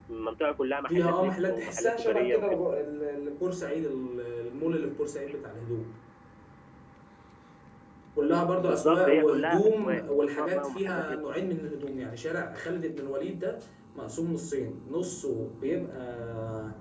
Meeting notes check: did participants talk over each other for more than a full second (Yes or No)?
Yes